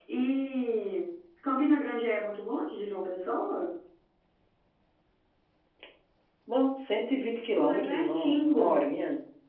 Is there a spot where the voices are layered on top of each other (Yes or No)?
Yes